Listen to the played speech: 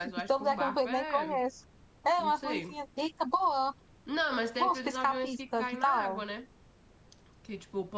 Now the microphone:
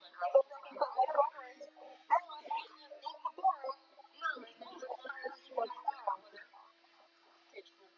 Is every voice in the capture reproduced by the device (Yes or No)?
Yes